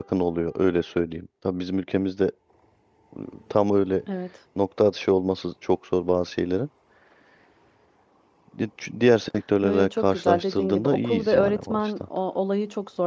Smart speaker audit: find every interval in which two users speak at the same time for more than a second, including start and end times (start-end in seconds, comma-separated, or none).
9.6-11.9